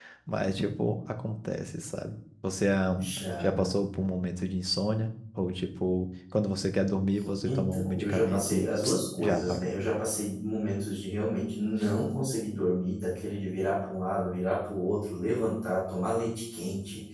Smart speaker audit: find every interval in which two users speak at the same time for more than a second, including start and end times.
7.5-9.7

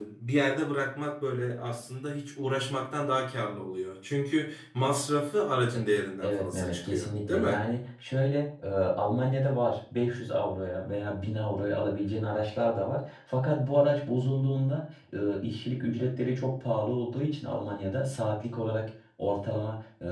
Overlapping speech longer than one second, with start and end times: 6.2-7.5

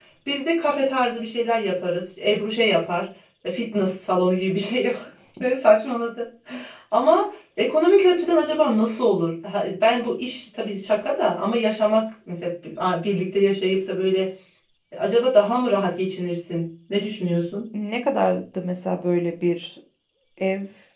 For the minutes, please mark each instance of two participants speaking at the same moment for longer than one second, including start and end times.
none

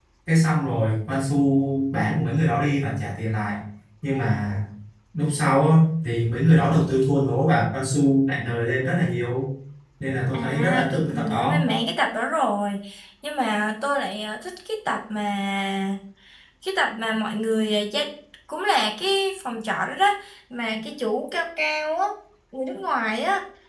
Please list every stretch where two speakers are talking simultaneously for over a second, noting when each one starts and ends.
10.3-11.6

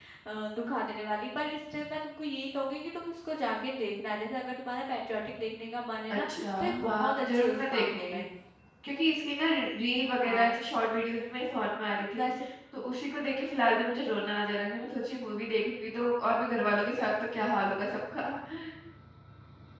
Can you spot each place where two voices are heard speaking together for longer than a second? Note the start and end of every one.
6.1-8.1

